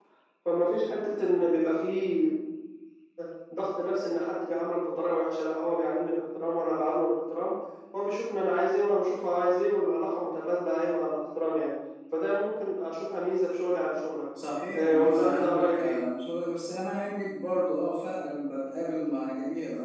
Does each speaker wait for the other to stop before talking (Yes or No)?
No